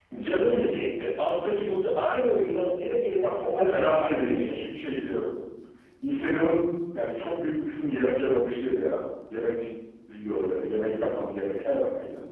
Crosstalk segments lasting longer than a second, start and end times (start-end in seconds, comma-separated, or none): 3.2-4.6